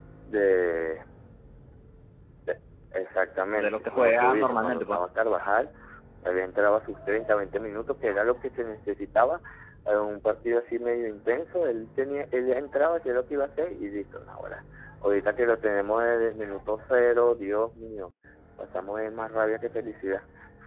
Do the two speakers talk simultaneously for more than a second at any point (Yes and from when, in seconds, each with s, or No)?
Yes, from 3.5 s